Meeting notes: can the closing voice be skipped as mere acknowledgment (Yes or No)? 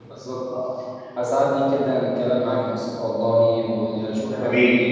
Yes